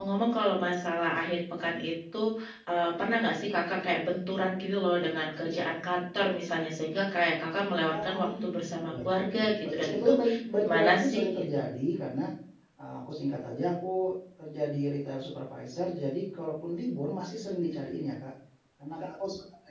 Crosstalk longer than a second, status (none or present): present